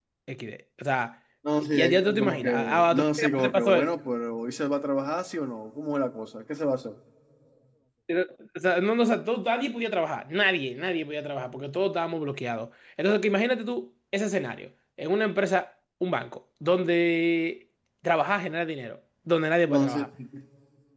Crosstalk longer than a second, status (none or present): present